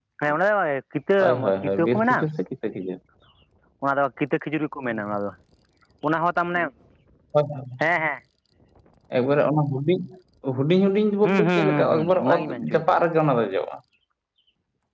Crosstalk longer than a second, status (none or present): present